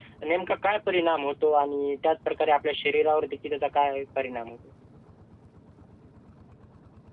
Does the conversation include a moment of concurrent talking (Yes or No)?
No